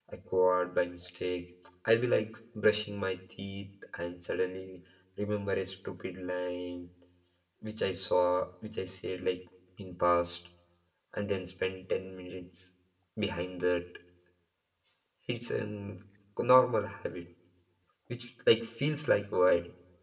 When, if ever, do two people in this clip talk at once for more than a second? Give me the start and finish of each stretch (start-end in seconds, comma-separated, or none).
none